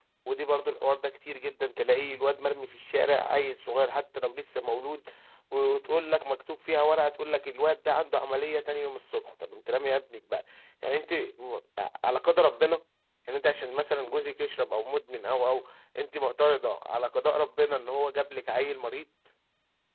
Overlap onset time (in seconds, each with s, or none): none